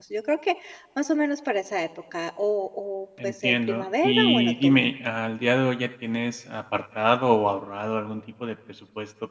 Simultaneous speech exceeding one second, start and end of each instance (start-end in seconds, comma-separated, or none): 3.2-4.9